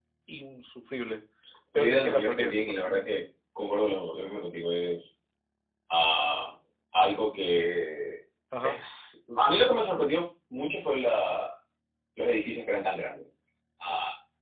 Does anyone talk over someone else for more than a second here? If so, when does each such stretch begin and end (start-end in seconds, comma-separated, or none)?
1.8-3.0